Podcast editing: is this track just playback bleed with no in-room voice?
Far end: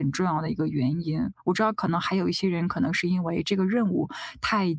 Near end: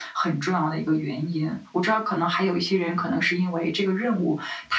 Yes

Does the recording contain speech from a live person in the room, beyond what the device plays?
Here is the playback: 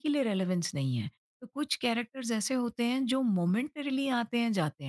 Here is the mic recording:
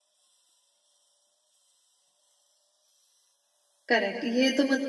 Yes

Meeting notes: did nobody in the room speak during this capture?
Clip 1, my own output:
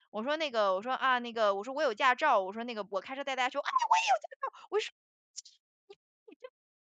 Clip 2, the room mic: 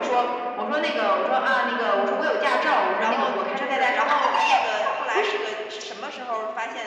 No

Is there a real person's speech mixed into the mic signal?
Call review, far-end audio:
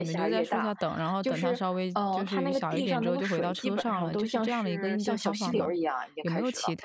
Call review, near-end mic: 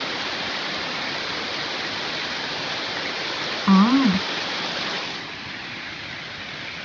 Yes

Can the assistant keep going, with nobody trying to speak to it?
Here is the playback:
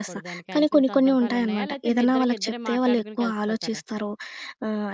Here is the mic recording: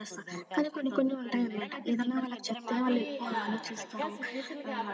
No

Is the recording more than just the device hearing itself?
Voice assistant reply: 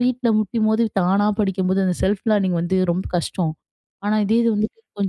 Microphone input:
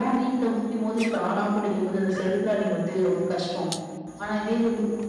No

